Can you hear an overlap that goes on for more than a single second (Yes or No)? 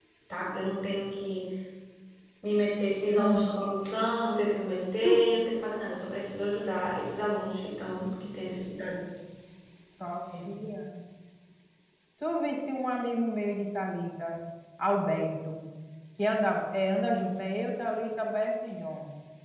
No